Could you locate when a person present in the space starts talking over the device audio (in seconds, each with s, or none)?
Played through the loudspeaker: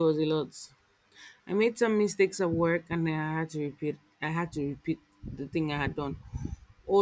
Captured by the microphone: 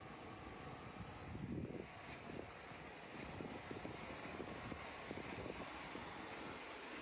none